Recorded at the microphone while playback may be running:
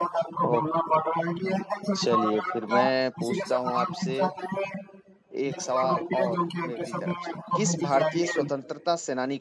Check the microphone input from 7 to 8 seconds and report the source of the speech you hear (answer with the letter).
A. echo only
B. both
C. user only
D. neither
B